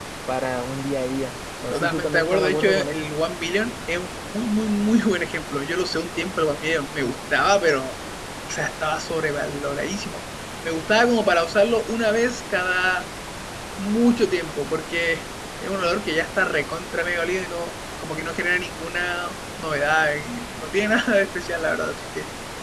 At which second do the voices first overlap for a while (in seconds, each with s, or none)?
1.7 s